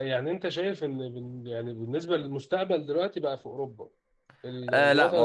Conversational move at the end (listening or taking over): taking over